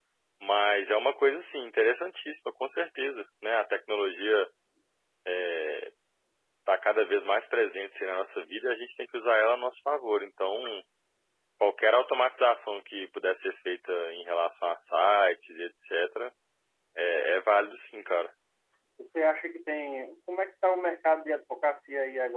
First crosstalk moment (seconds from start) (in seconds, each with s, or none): none